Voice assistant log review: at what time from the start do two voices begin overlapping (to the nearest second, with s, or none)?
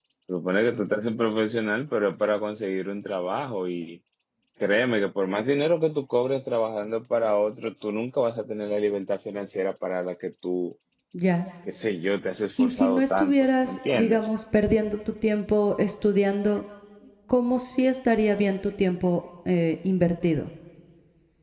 13 s